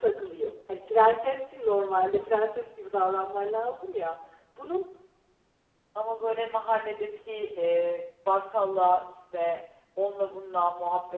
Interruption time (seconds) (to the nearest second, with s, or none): none